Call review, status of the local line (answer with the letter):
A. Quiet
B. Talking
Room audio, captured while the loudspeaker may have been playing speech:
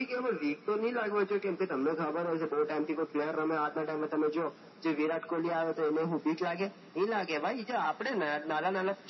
A